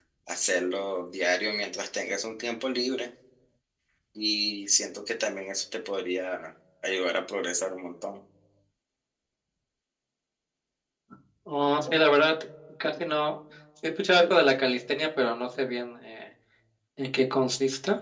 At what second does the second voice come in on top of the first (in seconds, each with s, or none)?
none